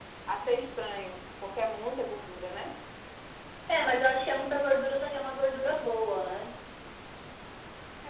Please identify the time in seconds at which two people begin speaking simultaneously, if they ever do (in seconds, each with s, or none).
none